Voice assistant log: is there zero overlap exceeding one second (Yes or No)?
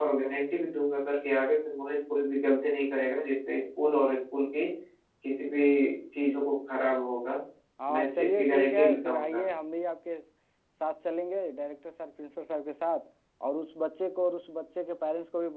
No